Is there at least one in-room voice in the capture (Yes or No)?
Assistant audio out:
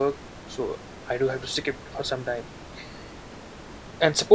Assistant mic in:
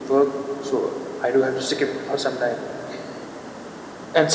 No